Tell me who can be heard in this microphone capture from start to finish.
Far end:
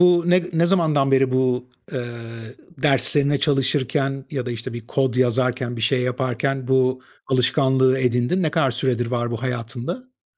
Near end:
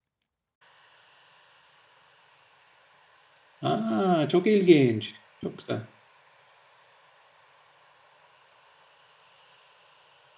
user only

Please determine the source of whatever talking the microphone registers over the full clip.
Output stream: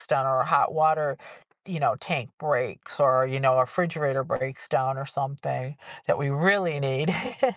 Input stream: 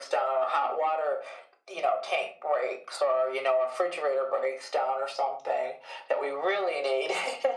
echo only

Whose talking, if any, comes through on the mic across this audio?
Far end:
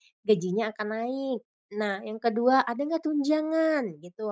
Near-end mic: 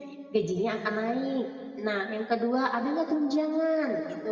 echo only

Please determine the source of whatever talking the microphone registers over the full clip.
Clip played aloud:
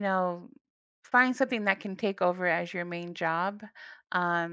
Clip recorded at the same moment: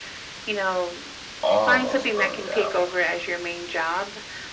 both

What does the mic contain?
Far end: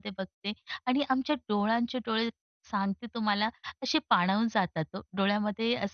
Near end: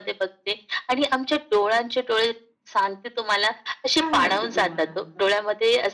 both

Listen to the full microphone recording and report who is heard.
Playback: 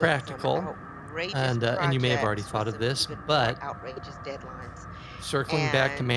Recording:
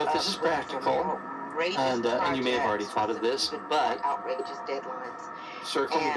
echo only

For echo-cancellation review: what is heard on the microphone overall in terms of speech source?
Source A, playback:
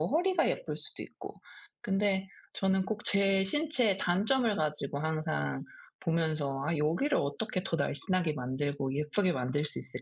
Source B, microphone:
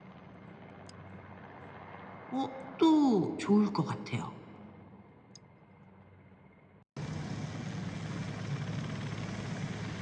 user only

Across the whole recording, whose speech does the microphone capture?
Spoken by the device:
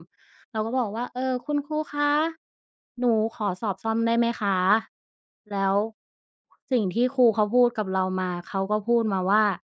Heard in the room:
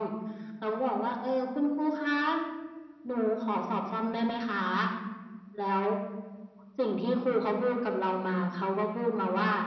echo only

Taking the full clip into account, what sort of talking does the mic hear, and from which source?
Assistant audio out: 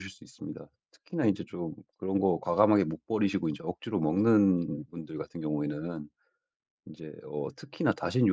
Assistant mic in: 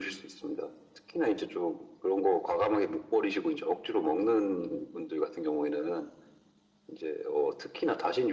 echo only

